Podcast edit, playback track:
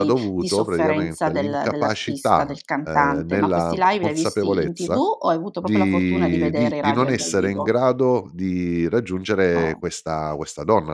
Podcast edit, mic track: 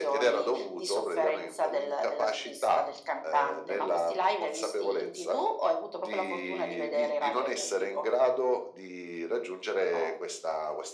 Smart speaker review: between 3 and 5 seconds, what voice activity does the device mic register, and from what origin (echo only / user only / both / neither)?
echo only